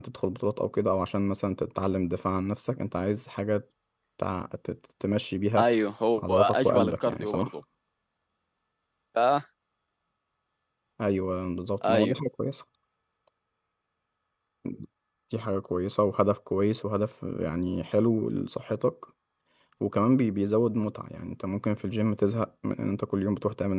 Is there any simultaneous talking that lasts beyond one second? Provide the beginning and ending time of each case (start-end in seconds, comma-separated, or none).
6.3-7.5